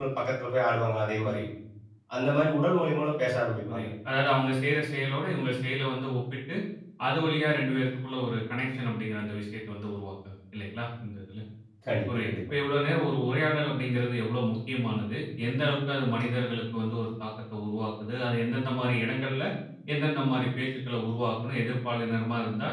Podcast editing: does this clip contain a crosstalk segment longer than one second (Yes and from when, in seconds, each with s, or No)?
No